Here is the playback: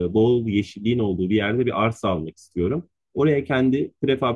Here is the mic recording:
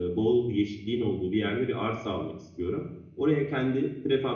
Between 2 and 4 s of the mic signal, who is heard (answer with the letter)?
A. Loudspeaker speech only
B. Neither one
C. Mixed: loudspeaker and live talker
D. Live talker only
A